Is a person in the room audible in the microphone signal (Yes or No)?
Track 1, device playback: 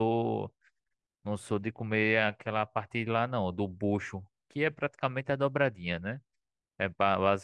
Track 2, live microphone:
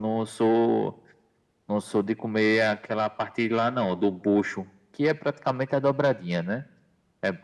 No